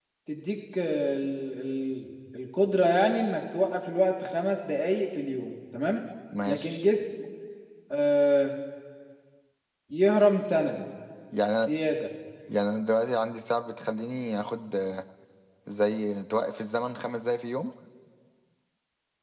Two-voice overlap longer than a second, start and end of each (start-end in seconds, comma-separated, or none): none